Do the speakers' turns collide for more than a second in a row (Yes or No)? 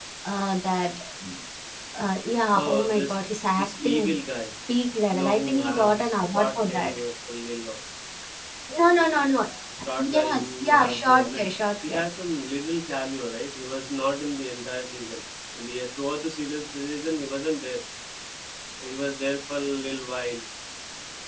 Yes